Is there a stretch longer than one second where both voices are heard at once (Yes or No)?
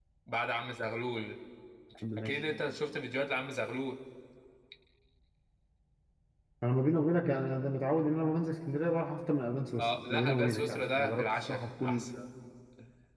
Yes